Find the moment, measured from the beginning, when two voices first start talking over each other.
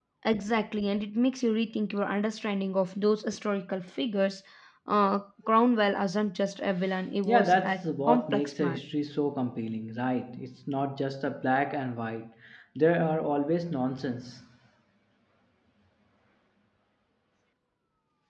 7.2 s

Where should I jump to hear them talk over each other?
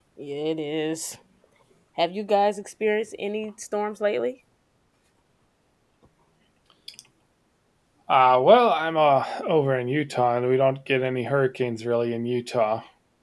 none

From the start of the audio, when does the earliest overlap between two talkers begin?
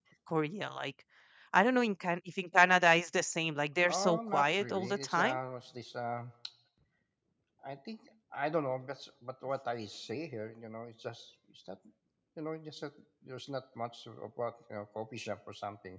3.8 s

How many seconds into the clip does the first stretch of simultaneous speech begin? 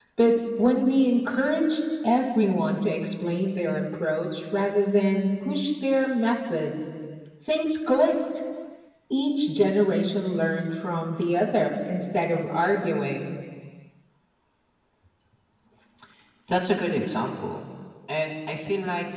none

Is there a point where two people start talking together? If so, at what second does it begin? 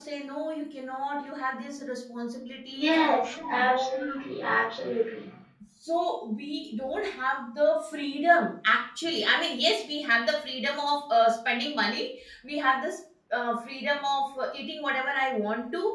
2.8 s

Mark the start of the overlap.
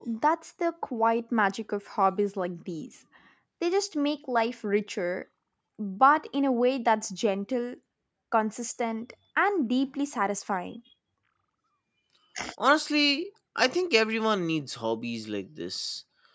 none

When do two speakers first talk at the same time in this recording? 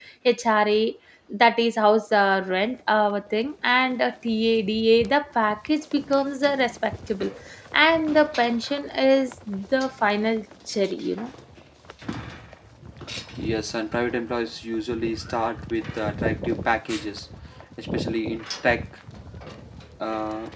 none

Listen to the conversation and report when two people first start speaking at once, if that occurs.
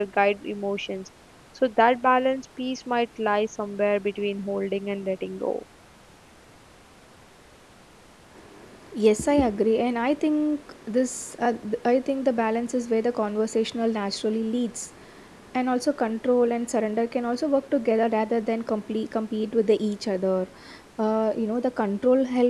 none

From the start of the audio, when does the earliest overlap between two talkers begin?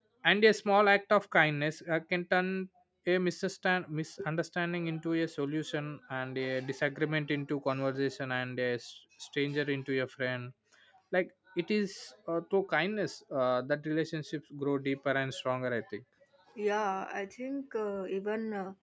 none

